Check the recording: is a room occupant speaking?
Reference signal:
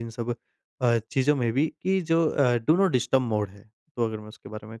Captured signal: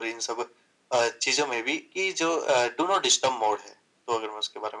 No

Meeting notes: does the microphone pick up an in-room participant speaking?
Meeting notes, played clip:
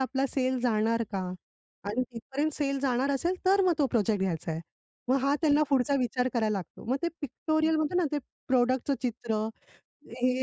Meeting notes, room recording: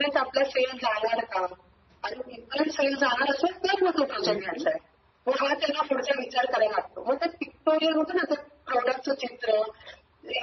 Yes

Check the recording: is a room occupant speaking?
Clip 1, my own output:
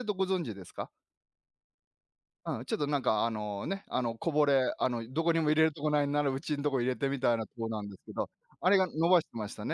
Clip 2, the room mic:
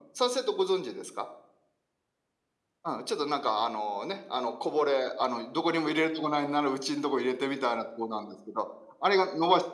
No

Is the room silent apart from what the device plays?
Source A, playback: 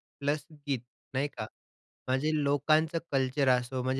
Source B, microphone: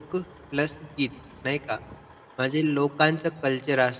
Yes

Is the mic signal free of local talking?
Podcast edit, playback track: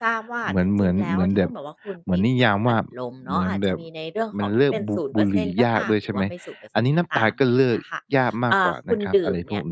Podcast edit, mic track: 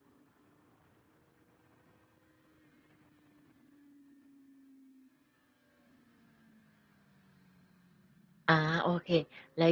No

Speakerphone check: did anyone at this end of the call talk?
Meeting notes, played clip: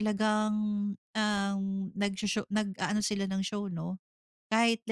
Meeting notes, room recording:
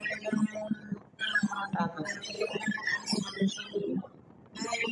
Yes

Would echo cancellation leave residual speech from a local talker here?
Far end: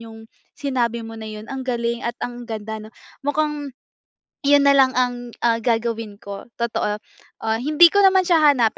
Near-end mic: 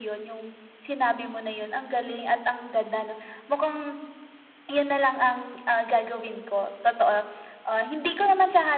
No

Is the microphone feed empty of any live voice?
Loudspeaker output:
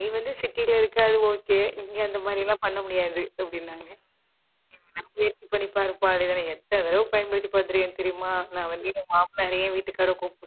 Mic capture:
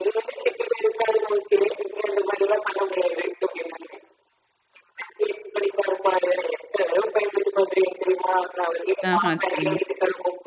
No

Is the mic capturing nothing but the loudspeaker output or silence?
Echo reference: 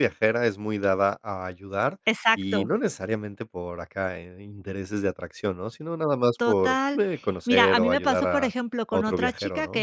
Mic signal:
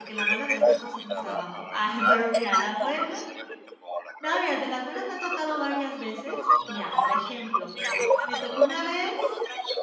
No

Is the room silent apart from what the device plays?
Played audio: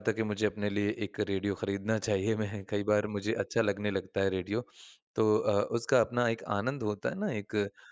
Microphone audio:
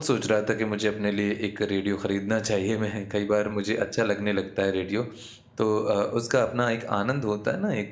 Yes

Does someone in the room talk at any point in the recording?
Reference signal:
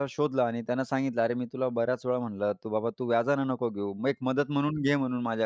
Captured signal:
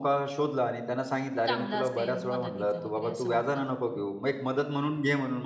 Yes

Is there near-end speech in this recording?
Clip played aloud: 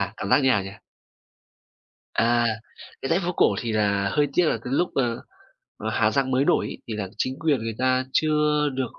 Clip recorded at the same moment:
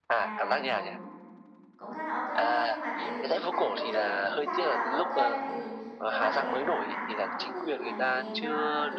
Yes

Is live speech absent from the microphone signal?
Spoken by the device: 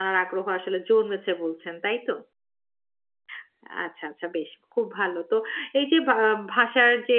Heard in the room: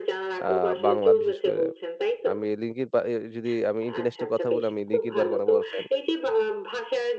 No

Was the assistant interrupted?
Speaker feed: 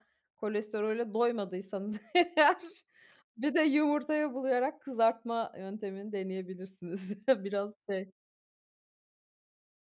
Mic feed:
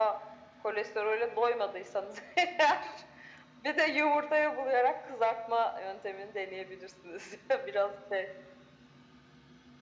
No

